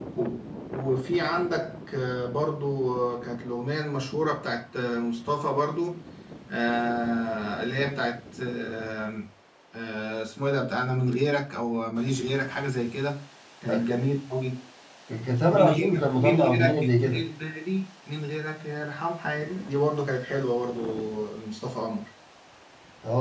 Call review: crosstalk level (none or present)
present